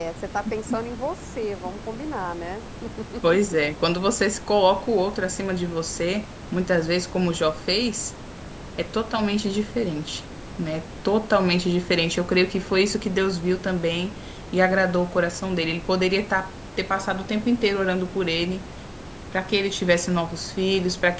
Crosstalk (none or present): none